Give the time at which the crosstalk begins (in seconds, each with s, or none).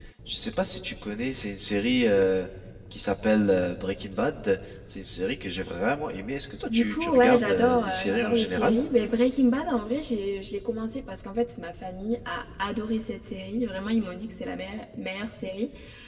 6.7 s